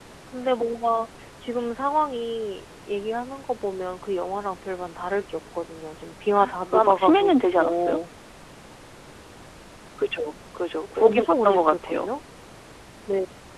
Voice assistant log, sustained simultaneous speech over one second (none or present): present